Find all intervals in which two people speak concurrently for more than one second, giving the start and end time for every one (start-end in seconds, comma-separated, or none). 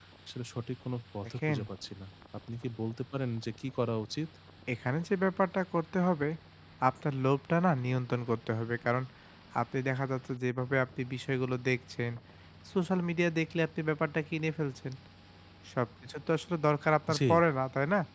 none